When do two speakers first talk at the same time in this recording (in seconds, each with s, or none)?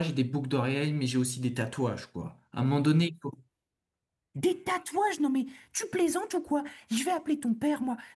none